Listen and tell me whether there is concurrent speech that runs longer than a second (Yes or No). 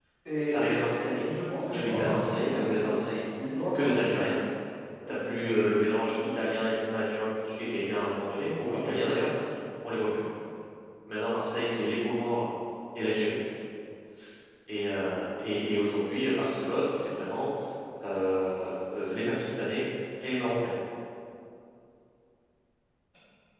Yes